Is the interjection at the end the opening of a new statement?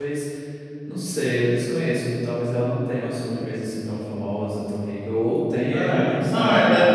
Yes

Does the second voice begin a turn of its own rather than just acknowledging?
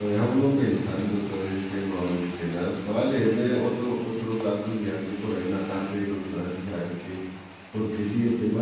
No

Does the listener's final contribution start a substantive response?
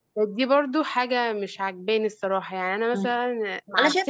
Yes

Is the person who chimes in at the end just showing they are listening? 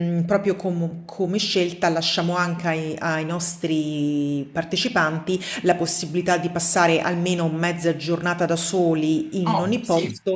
No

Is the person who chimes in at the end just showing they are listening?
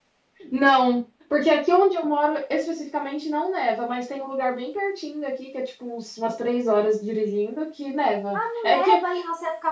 No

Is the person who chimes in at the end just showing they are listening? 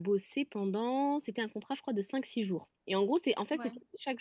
Yes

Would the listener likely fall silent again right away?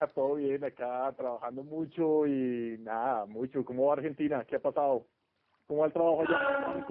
No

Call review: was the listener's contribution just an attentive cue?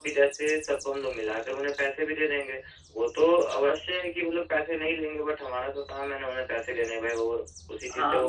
No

